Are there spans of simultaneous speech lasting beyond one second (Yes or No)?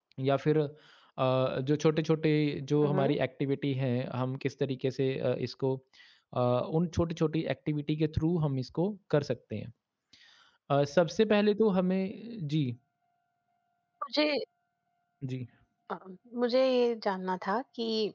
No